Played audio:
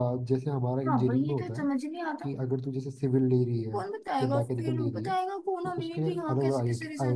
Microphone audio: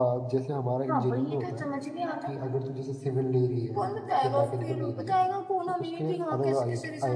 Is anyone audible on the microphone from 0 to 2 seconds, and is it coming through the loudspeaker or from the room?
echo only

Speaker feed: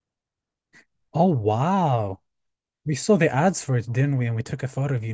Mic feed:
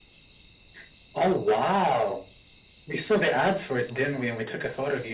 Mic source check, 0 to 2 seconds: echo only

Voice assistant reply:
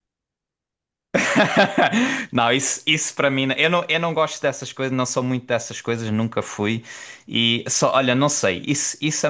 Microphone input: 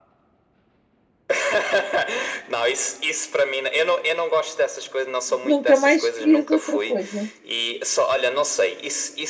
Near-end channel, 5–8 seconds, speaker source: both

